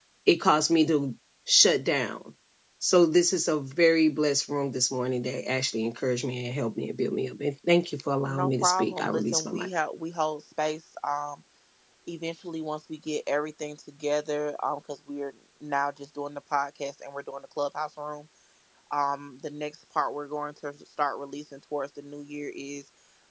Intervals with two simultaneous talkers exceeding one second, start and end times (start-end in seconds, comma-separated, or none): 8.3-9.7